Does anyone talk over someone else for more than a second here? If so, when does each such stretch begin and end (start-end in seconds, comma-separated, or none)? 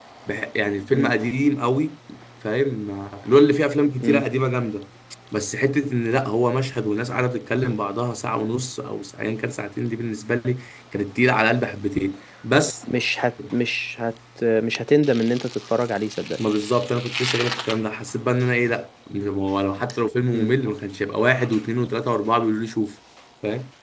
none